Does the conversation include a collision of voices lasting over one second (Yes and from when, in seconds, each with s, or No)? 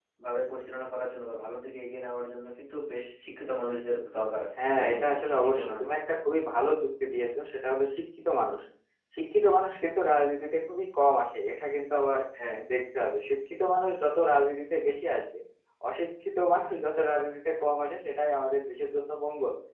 Yes, from 4.6 s